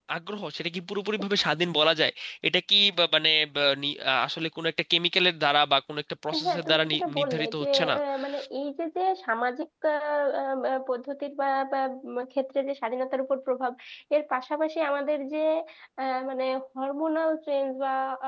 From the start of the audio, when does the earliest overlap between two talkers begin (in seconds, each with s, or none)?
6.3 s